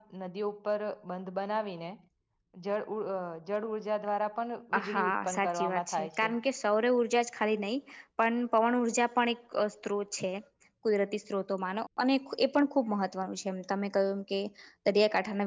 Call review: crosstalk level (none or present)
present